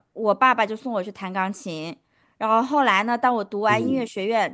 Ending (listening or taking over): listening